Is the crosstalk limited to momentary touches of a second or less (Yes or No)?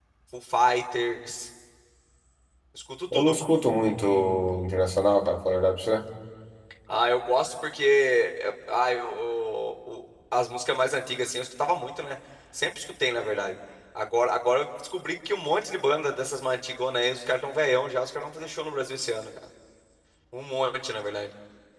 Yes